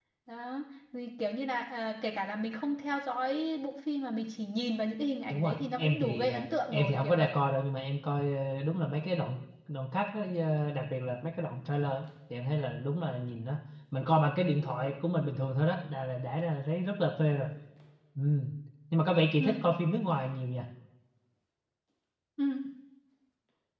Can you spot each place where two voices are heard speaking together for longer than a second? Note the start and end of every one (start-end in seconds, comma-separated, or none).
5.3-7.3